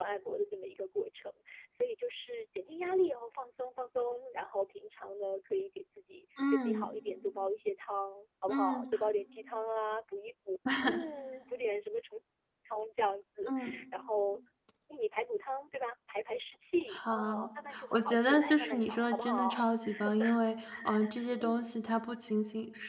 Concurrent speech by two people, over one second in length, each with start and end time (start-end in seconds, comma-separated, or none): 17.9-19.6